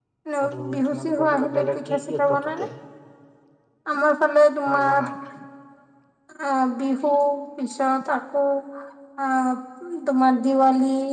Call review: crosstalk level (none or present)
present